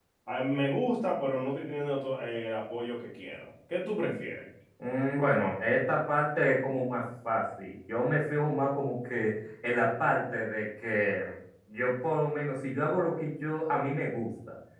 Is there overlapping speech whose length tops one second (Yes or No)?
No